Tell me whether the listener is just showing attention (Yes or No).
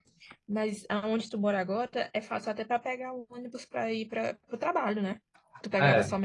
Yes